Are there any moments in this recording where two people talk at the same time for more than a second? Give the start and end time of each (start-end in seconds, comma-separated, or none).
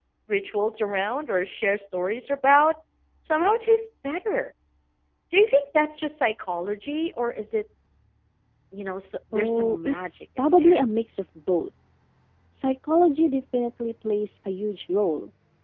9.3-10.8